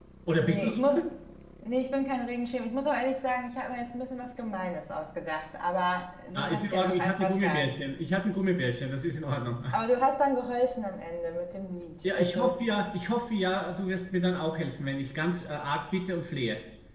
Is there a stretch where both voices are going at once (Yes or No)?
Yes